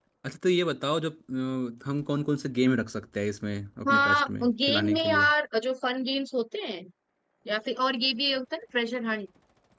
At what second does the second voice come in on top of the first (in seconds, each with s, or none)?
3.8 s